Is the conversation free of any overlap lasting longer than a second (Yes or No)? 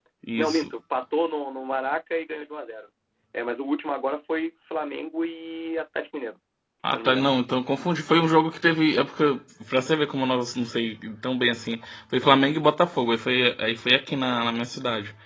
Yes